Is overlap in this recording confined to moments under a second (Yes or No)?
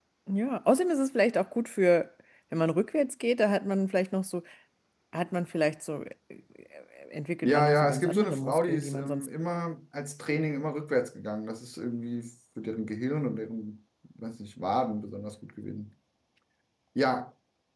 No